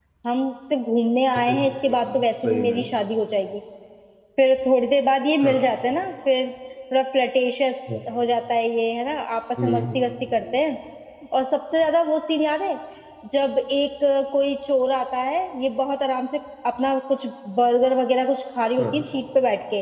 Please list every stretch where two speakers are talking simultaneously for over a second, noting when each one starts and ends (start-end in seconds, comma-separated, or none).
1.4-2.8